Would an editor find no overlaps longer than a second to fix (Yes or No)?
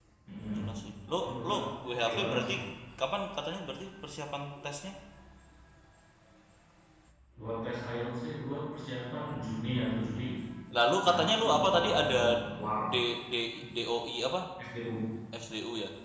No